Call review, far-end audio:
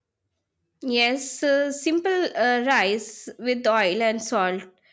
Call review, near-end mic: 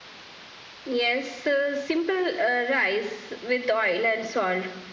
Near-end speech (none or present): none